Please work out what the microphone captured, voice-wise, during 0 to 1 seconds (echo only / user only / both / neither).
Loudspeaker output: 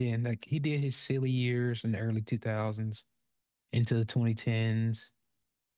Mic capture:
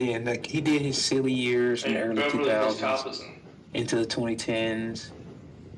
echo only